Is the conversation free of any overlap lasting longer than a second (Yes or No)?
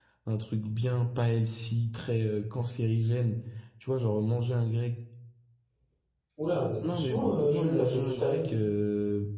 No